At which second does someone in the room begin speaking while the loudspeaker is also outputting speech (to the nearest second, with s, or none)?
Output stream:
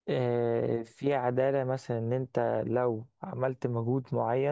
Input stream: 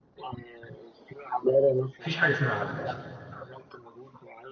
2 s